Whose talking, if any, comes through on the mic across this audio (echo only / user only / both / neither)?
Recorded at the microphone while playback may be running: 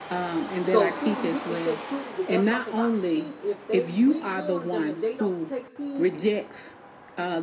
both